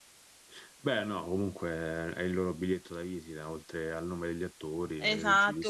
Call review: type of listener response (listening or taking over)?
taking over